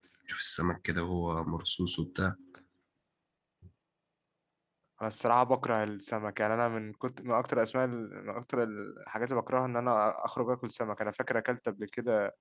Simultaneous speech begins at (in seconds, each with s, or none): none